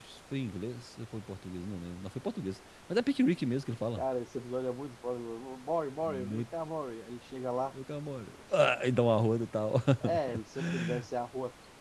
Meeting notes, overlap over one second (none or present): none